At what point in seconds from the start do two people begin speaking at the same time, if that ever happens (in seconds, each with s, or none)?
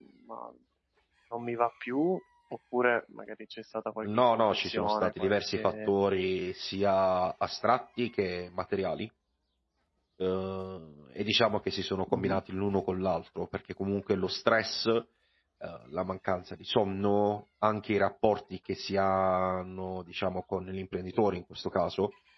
4.1 s